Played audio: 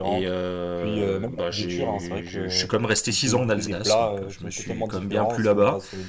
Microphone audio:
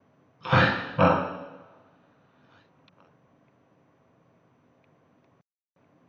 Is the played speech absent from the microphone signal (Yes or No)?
Yes